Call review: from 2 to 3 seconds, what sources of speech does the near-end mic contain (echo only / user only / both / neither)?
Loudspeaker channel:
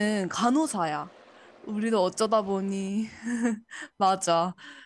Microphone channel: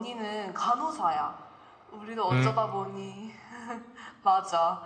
both